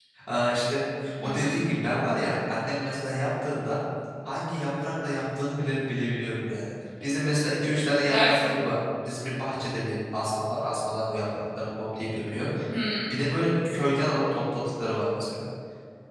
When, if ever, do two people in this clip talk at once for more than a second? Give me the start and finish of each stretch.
none

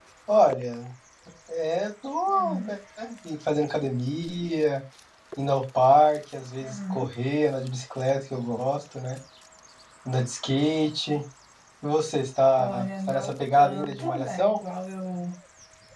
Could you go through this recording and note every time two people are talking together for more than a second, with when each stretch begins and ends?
12.6-14.6

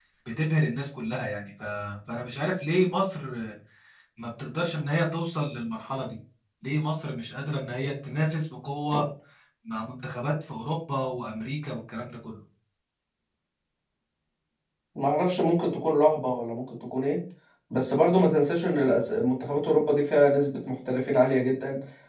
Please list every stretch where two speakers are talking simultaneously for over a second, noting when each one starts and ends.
none

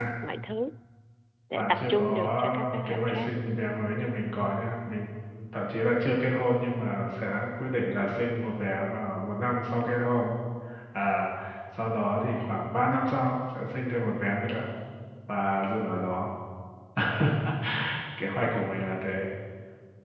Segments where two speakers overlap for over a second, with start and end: 1.5-3.3

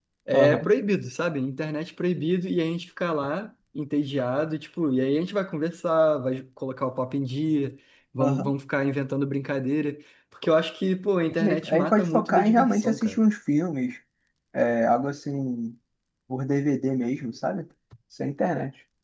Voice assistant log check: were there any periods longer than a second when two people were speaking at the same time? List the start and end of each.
11.7-13.2

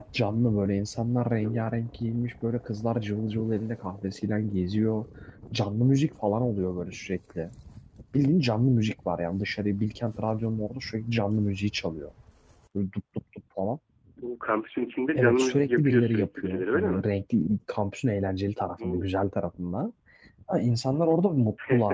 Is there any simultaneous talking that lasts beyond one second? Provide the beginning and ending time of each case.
15.1-17.1

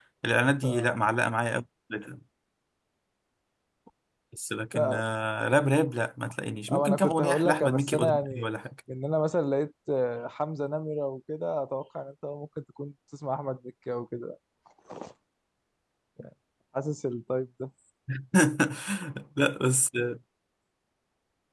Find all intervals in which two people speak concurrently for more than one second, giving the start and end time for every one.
6.7-8.4

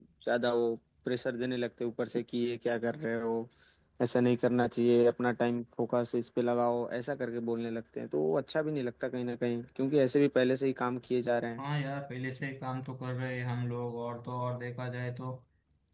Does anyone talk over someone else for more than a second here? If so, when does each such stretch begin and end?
none

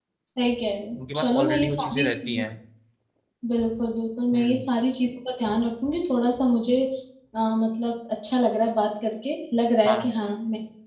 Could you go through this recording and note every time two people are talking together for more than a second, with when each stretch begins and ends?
1.0-2.4

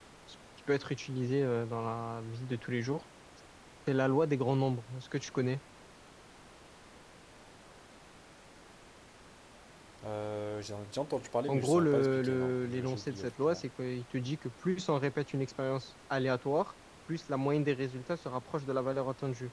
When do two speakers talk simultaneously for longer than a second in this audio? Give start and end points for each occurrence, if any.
11.5-13.6

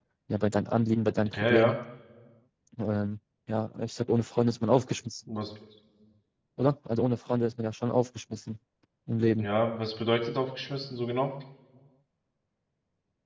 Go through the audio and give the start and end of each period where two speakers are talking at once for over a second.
none

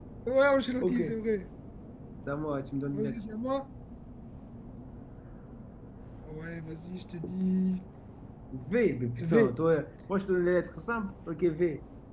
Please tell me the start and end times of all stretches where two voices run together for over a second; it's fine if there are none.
none

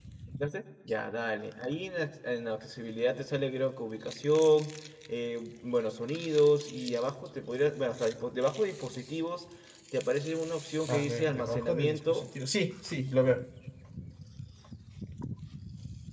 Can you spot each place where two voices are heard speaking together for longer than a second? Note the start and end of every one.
10.9-12.2

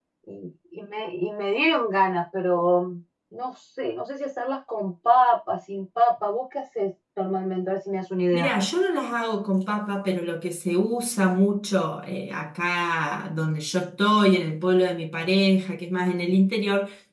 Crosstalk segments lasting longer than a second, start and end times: none

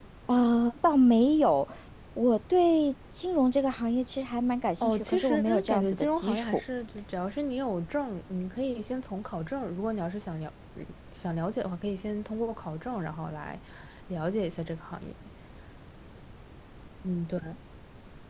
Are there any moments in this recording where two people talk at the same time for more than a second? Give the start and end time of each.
4.8-6.6

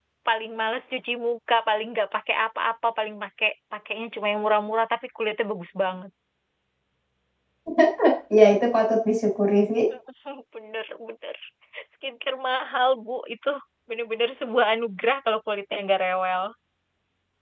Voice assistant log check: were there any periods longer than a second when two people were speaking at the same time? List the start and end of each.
none

